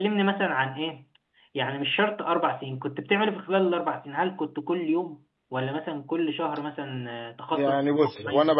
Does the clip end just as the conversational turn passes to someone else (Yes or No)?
Yes